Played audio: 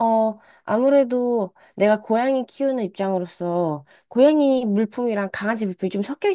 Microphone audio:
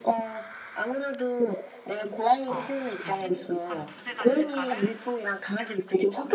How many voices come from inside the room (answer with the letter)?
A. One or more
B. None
A